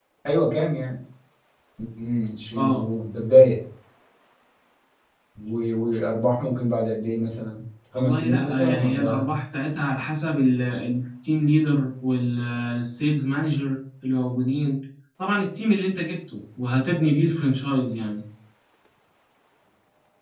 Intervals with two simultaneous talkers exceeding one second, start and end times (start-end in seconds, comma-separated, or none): 8.0-9.3